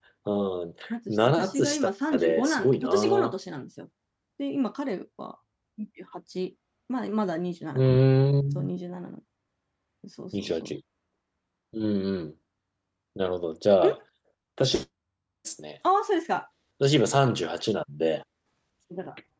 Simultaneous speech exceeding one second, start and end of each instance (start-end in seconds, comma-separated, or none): 1.1-3.3